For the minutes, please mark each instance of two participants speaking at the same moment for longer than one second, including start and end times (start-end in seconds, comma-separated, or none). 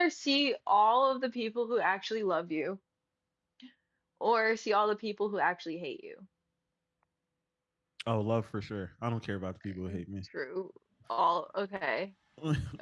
none